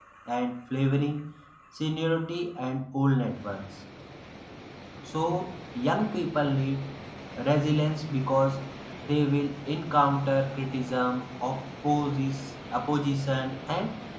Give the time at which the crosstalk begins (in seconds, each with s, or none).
none